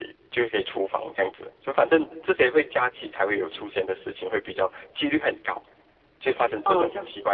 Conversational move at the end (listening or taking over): taking over